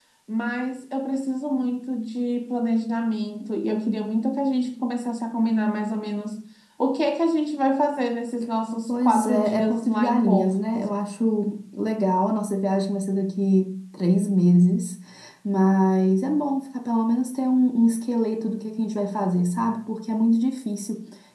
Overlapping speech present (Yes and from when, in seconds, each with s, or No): Yes, from 8.9 s